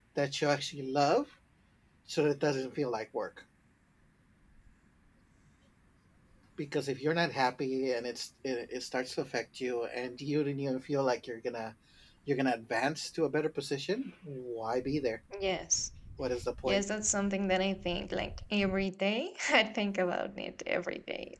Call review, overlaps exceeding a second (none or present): none